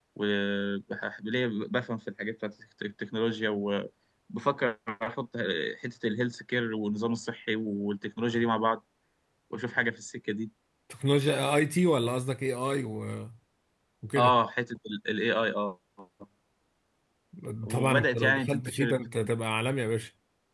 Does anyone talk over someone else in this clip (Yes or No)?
Yes